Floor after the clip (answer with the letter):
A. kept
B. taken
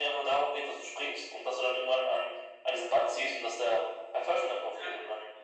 B